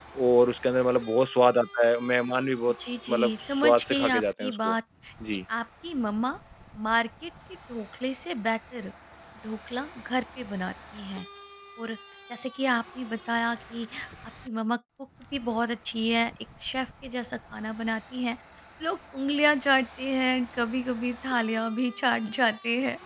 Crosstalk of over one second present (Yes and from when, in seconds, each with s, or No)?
Yes, from 3.1 s